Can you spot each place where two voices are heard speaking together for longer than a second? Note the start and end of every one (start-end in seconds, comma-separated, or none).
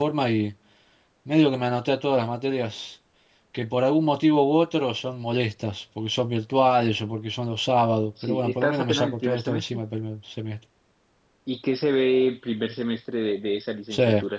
8.2-9.8